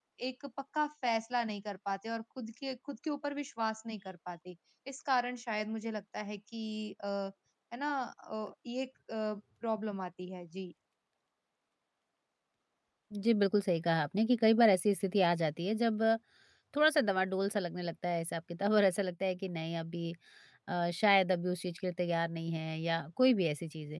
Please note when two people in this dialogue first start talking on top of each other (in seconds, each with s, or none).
none